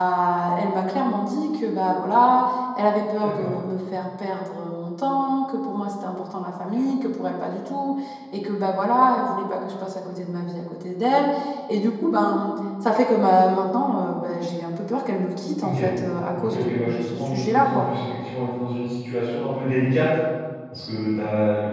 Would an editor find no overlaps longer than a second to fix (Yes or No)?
No